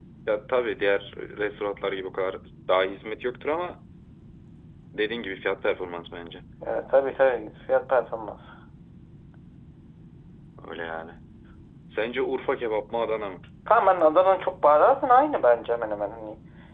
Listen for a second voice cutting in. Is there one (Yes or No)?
No